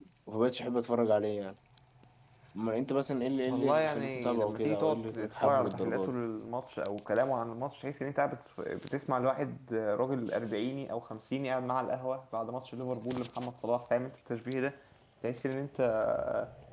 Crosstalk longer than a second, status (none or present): present